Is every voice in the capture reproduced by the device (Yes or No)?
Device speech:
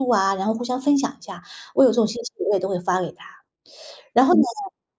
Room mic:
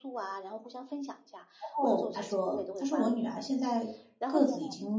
No